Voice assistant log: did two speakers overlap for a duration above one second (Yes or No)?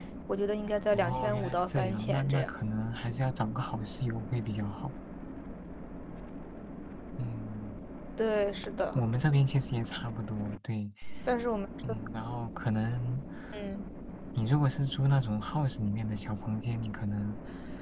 Yes